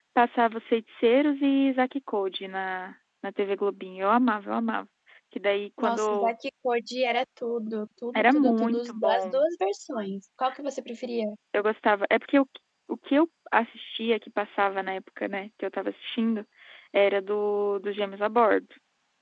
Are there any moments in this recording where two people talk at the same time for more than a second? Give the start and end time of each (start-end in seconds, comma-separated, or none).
8.2-9.4